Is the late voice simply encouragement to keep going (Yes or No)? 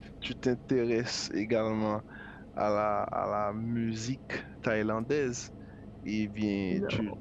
No